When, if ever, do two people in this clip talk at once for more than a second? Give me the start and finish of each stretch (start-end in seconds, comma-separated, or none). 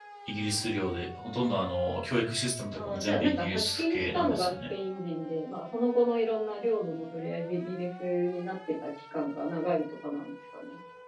2.8-4.5